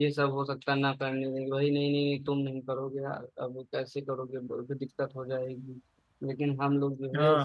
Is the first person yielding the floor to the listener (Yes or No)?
No